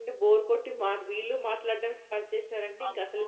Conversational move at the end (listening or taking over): taking over